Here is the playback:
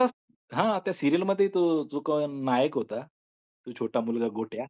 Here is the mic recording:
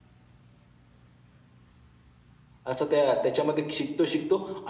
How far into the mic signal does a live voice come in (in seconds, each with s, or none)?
2.7 s